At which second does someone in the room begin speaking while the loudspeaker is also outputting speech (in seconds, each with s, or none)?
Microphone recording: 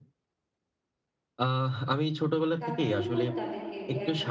2.6 s